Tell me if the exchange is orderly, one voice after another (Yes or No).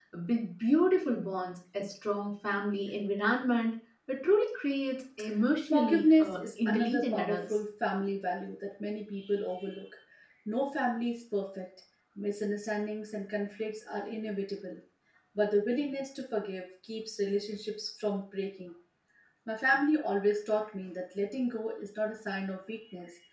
No